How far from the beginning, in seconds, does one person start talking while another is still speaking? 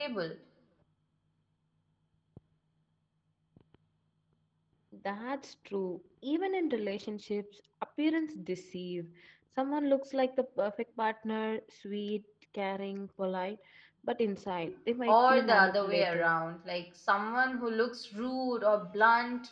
15.1 s

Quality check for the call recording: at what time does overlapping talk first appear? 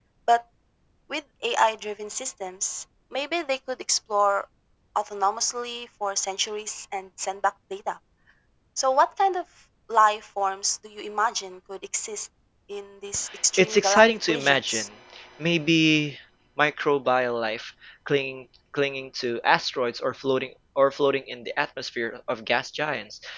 13.6 s

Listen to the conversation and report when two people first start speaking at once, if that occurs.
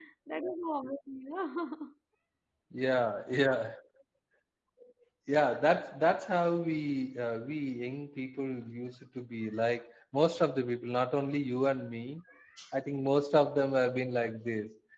none

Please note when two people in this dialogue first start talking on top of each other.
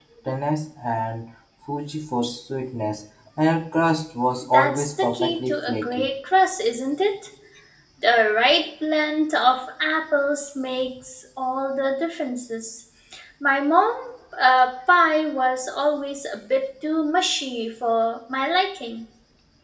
4.4 s

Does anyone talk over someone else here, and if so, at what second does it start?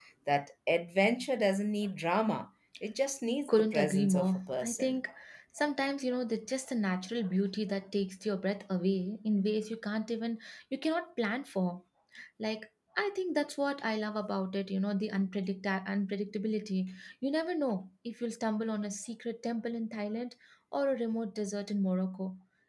3.5 s

